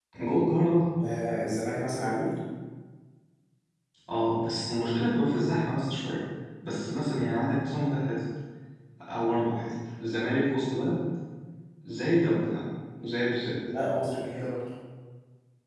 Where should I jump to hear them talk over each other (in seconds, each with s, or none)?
none